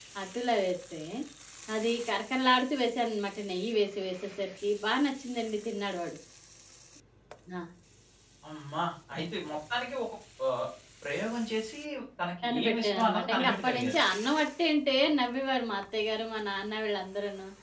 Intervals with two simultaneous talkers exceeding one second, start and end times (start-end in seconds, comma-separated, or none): 12.4-14.0